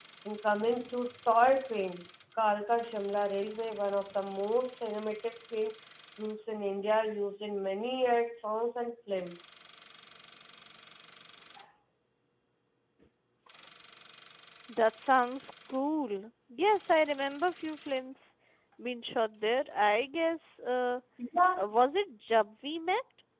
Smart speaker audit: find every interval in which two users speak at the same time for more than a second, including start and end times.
none

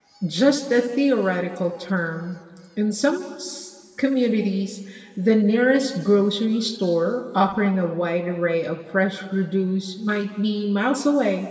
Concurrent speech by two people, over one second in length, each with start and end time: none

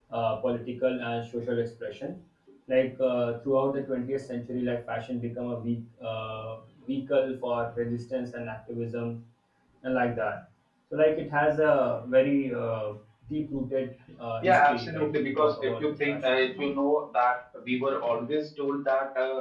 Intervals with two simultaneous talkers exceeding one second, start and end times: 14.4-16.2

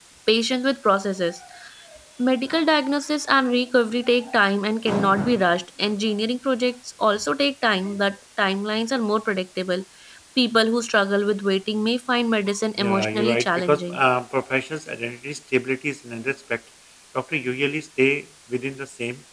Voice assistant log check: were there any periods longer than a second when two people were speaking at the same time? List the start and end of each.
12.8-14.0

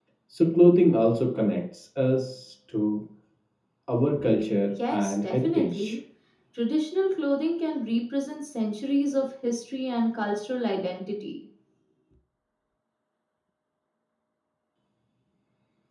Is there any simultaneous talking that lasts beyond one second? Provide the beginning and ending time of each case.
4.7-6.0

